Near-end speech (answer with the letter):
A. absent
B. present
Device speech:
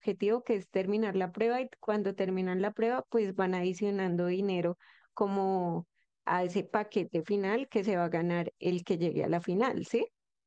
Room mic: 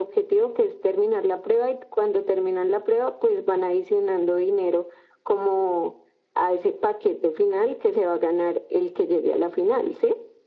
A